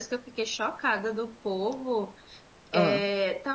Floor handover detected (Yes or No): No